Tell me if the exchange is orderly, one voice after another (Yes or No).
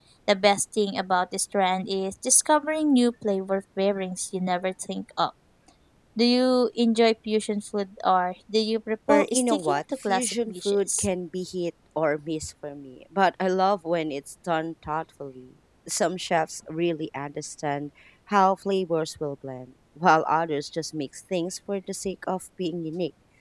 No